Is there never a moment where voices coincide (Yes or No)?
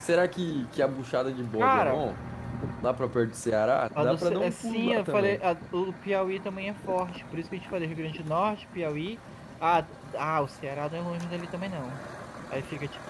No